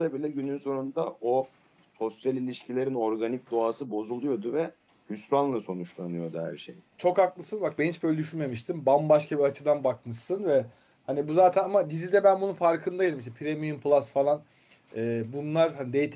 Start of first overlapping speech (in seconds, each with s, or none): none